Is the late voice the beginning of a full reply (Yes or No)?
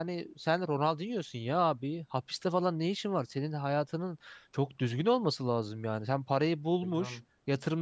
No